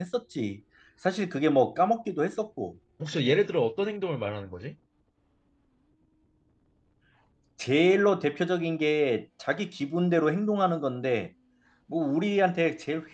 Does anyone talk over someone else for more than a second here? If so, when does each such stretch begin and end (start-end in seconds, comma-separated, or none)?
none